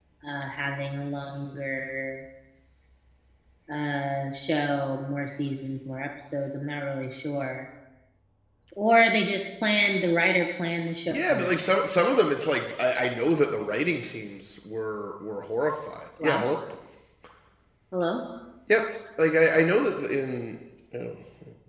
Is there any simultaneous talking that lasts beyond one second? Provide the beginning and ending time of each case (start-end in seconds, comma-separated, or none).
none